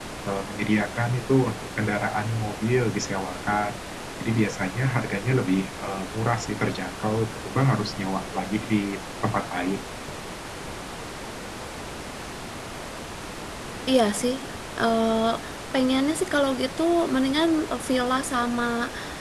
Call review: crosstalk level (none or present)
none